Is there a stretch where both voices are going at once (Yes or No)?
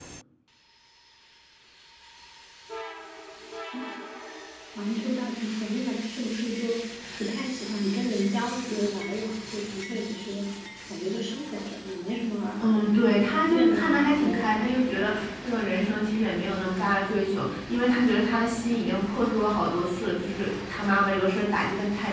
Yes